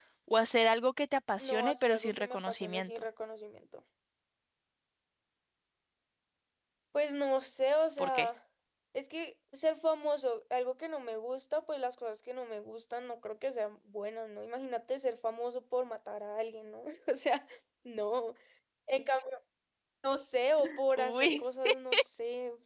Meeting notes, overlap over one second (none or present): present